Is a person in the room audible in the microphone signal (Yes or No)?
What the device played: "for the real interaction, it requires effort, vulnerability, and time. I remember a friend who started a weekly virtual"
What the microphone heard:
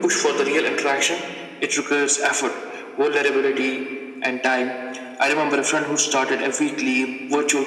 No